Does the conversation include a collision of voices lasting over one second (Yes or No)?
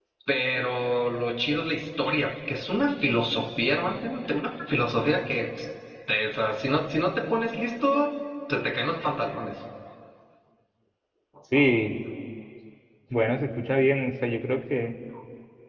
No